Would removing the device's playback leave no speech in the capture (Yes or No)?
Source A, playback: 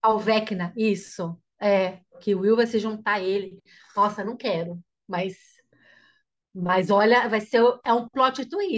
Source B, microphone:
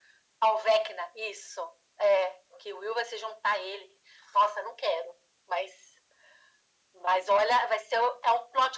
Yes